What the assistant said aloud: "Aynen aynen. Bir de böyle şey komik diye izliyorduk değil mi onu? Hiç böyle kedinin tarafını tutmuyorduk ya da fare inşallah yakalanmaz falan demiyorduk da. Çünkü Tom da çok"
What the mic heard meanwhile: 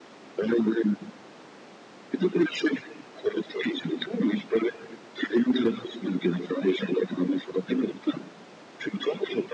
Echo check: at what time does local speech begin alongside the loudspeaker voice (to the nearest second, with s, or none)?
none